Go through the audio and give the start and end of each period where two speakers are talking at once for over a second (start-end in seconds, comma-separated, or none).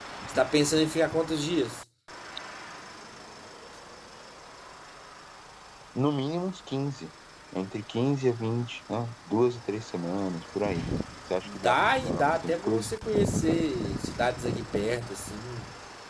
11.4-12.9